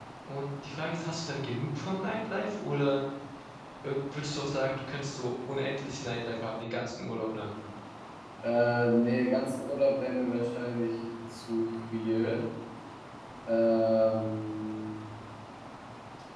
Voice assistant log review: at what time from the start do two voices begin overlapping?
none

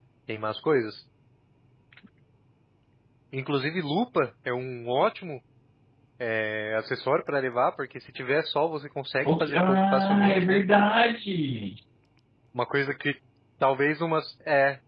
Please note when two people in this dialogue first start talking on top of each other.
9 s

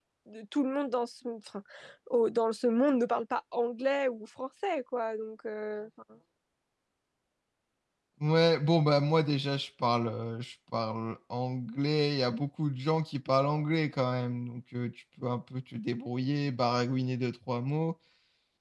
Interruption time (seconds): none

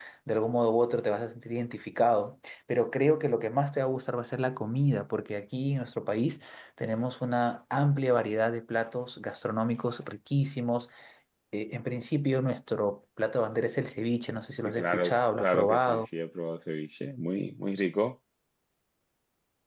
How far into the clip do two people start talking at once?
15 s

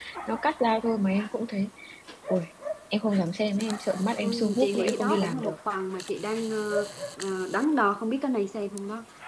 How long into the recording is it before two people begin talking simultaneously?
4 s

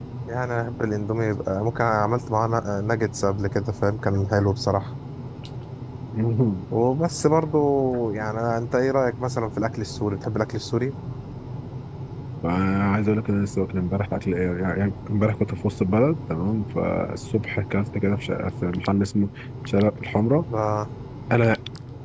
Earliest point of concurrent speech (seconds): none

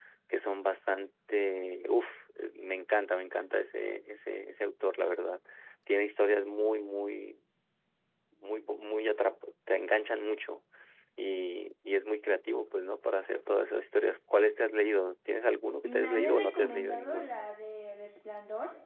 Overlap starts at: 16 s

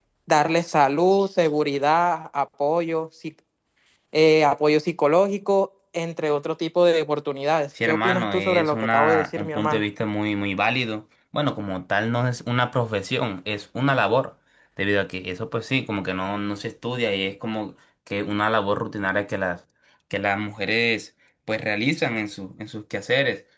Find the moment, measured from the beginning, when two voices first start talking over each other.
8 s

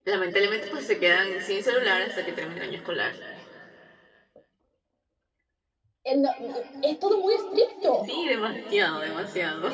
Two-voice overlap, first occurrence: none

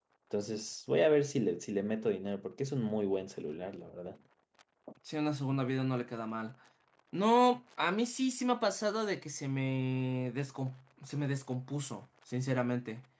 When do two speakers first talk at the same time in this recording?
none

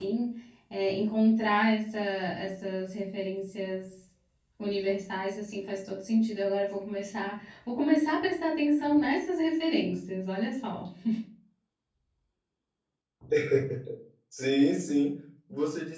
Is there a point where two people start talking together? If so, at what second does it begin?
none

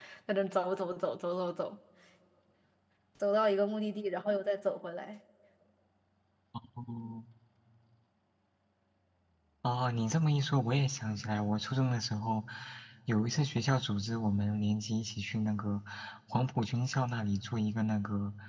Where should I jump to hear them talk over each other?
none

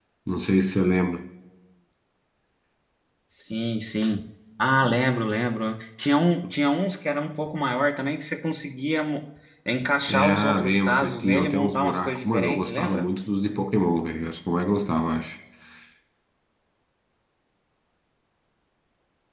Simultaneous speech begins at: 10 s

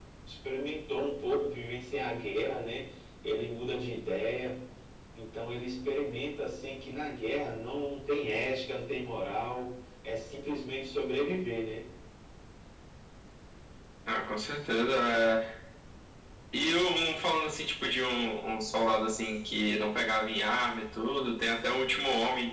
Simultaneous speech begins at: none

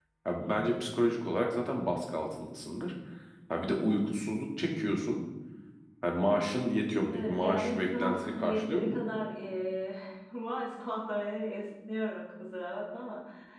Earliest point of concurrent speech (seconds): 7 s

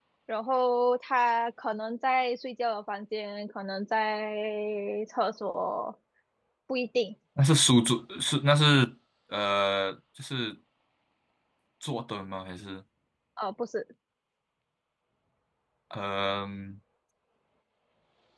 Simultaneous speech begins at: none

